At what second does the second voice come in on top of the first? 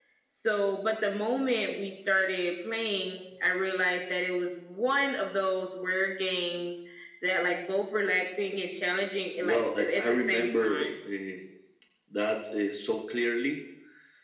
9.4 s

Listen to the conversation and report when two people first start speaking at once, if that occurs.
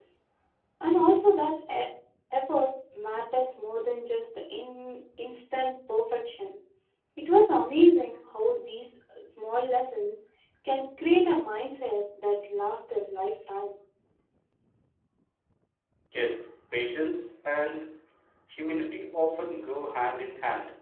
none

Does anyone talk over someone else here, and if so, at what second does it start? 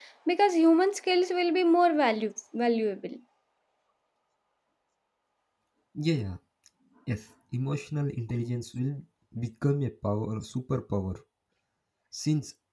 none

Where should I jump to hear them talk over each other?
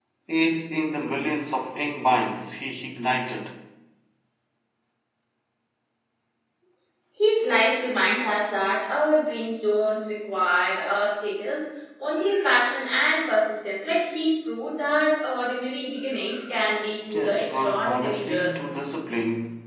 17.1 s

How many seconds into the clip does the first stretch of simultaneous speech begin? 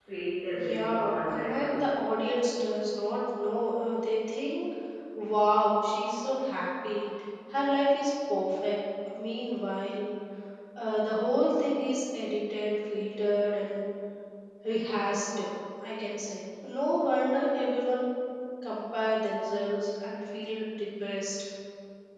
0.5 s

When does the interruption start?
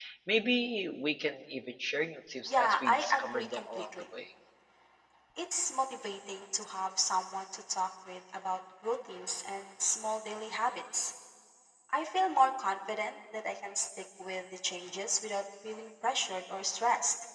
2.5 s

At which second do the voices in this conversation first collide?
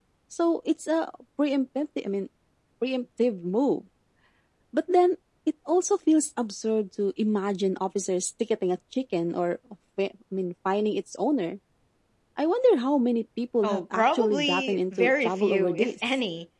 13.6 s

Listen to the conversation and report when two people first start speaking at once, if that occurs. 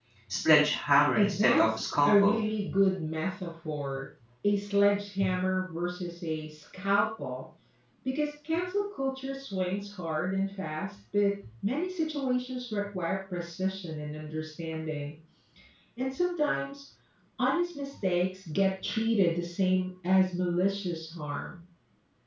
1.1 s

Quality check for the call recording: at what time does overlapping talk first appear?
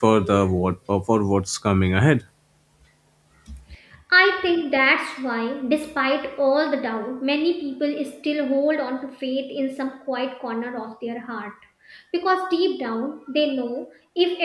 none

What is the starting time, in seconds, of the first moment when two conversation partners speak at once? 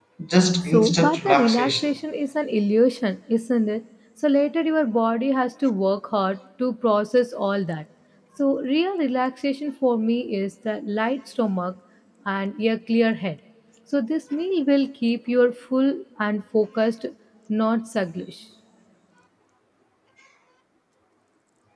0.6 s

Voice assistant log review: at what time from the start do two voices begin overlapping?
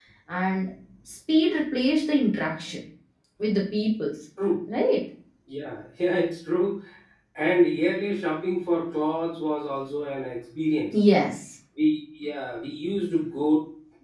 none

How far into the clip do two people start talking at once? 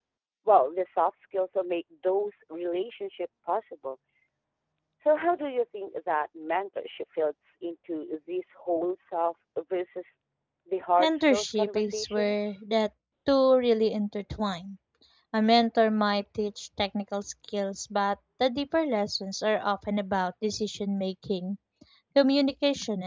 11.0 s

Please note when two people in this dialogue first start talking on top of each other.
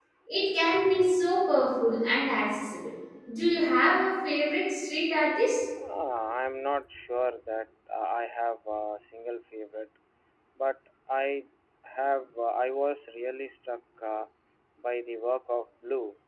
none

